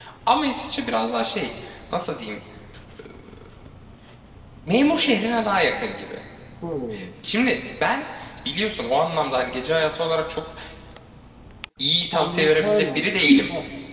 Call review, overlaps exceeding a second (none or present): present